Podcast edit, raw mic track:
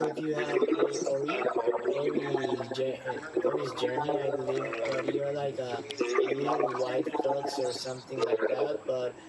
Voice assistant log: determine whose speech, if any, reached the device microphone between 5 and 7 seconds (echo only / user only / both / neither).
both